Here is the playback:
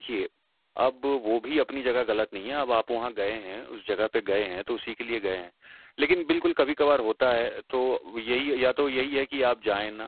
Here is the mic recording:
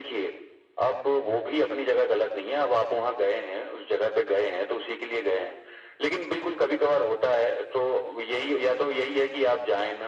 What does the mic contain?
echo only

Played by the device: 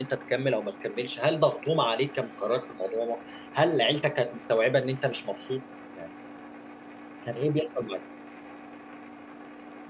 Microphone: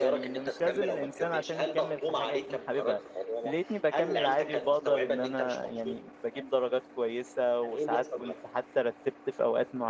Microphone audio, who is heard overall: both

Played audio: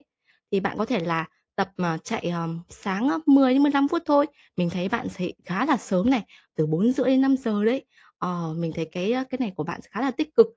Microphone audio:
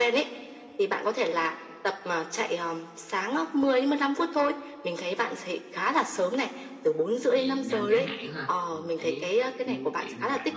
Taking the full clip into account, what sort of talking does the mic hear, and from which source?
both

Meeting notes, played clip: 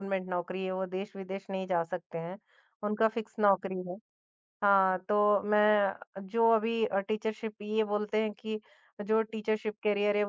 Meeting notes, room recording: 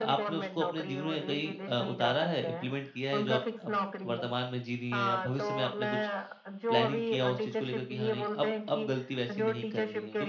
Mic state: both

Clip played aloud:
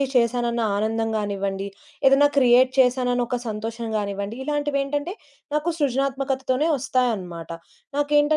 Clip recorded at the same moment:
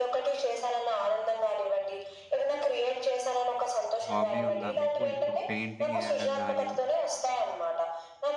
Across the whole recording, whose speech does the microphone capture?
both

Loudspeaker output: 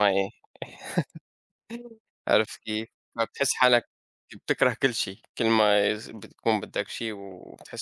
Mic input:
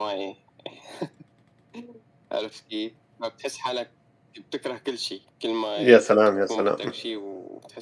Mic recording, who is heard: both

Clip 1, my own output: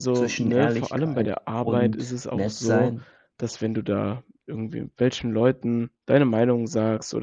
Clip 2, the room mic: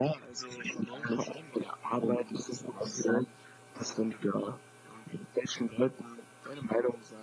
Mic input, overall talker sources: echo only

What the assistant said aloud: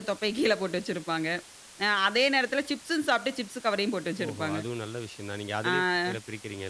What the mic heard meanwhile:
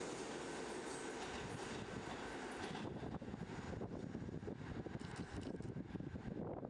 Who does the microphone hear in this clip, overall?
neither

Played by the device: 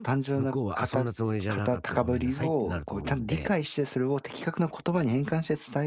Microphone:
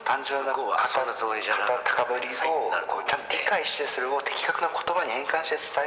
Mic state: echo only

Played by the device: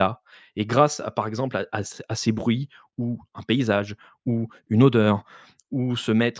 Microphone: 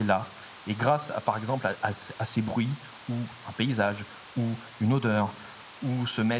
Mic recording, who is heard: echo only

